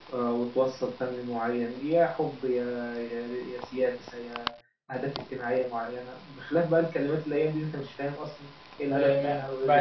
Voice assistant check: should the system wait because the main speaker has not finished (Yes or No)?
No